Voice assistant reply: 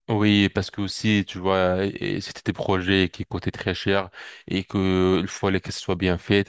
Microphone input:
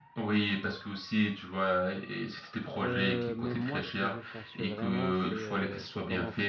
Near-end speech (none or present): present